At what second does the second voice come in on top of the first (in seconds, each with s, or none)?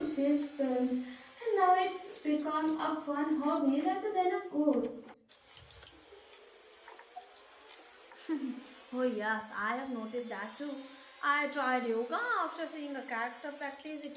none